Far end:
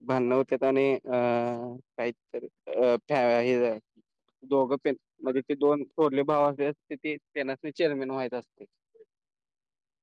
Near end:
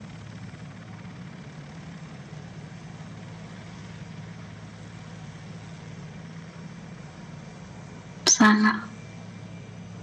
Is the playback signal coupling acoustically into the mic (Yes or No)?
No